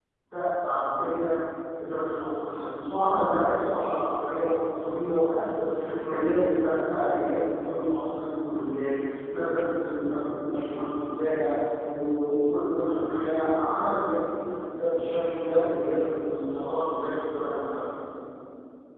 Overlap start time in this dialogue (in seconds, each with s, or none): none